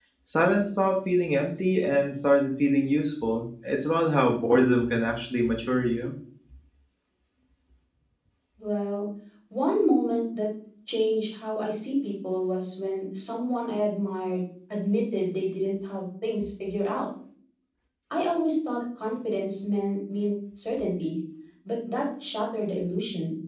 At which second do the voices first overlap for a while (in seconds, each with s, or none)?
none